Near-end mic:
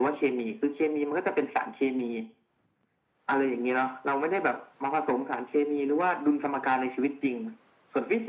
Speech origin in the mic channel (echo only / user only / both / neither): echo only